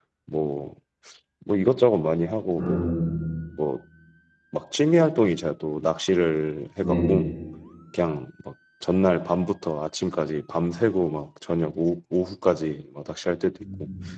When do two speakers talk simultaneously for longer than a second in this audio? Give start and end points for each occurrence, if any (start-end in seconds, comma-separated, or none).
none